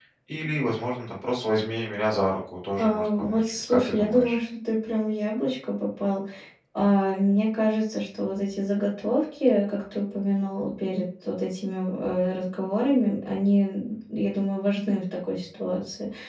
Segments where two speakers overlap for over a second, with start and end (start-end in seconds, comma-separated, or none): 2.8-4.4